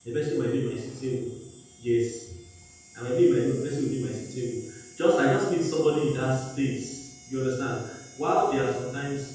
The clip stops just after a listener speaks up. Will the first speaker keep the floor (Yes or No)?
Yes